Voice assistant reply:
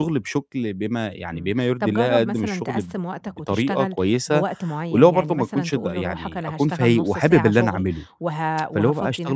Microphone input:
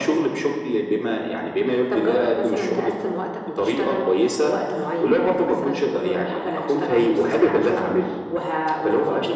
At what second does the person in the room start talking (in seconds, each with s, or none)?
none